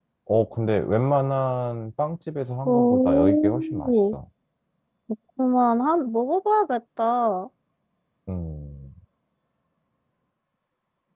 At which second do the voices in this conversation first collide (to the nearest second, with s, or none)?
3 s